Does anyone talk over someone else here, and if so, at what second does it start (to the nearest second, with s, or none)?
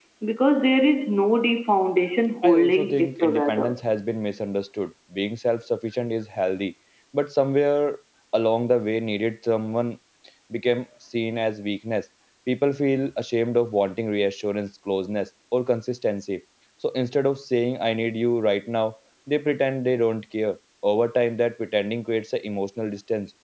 2 s